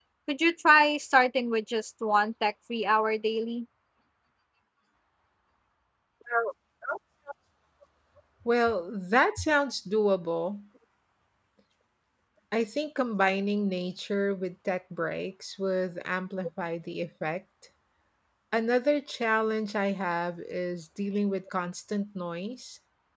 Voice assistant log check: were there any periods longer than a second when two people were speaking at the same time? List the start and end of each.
none

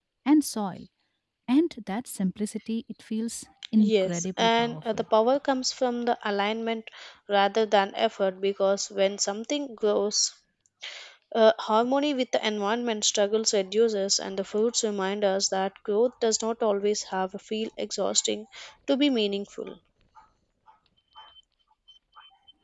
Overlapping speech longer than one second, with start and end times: 3.8-5.0

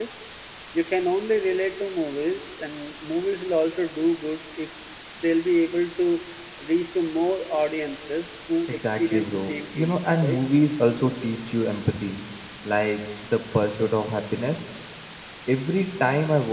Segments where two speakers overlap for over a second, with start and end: 8.7-10.4

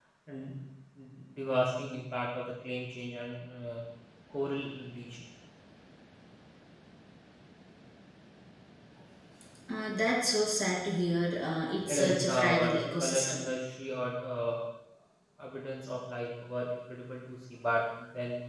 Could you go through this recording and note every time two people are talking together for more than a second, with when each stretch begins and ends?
11.9-13.5

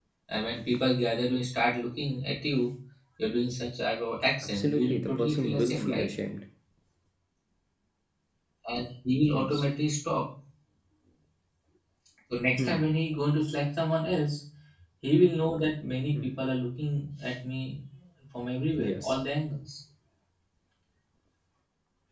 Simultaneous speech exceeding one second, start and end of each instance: 4.4-6.1

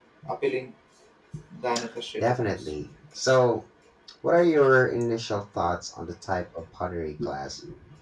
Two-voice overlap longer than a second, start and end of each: none

